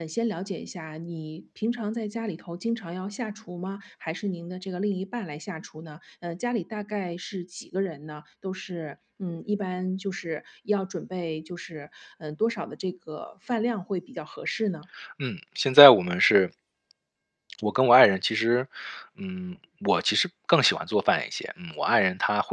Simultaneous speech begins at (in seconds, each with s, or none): none